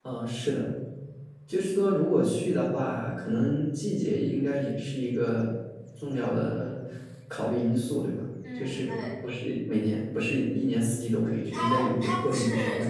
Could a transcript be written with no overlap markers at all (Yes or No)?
No